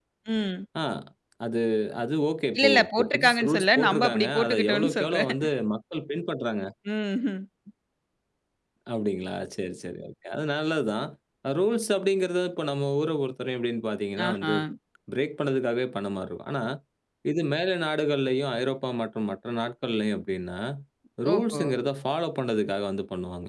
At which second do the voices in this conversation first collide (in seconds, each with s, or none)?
2.6 s